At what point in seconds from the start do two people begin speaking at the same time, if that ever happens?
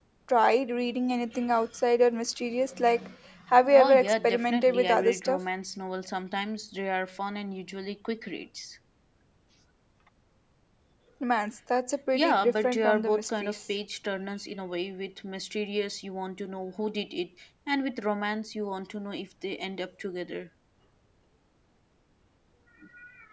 3.7 s

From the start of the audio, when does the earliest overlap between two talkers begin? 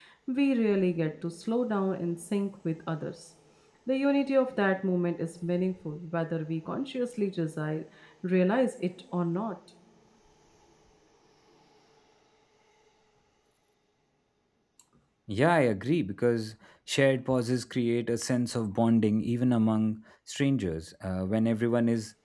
none

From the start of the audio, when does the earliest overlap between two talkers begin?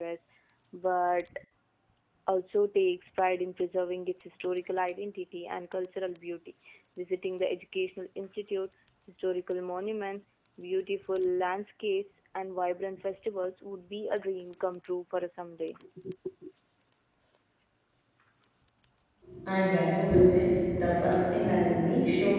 none

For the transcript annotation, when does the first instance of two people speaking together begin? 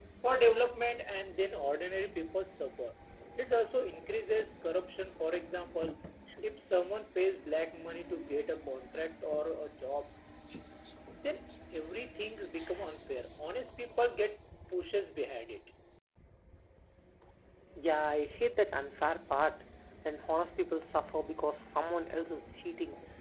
none

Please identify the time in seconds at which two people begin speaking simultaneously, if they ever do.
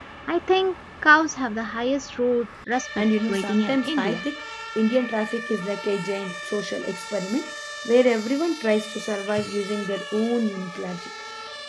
3.0 s

